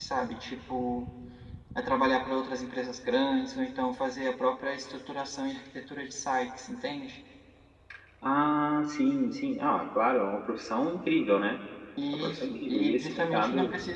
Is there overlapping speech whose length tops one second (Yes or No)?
Yes